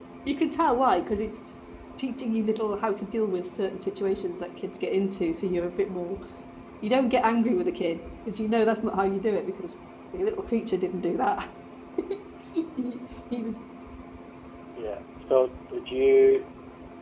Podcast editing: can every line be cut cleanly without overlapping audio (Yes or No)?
Yes